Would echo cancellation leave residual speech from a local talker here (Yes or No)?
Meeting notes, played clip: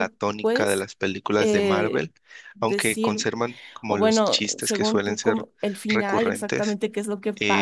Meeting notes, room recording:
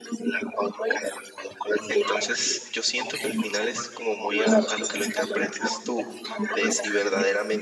Yes